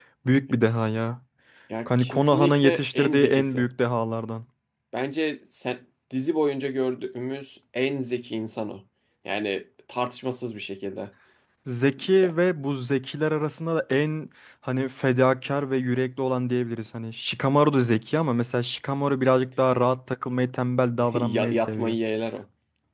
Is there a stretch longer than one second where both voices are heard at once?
Yes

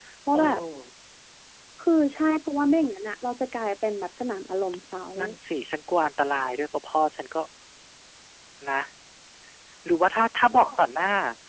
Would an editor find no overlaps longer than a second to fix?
Yes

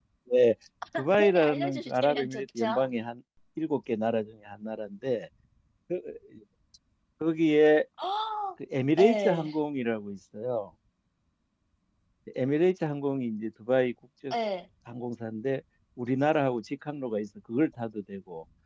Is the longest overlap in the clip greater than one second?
Yes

